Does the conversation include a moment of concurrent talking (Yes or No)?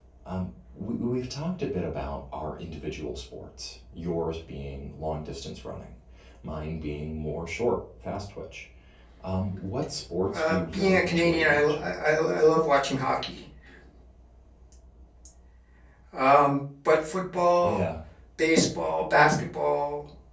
Yes